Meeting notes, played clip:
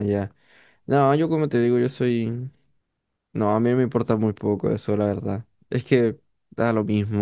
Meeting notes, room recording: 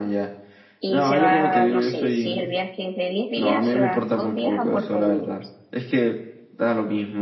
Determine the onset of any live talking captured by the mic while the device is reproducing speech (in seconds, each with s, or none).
0.8 s